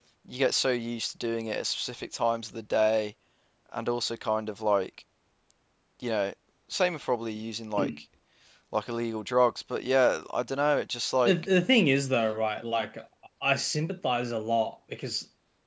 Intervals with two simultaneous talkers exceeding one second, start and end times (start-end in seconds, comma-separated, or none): none